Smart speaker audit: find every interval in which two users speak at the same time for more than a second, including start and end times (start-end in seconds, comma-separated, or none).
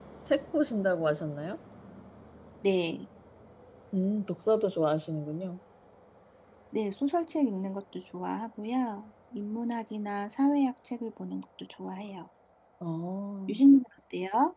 none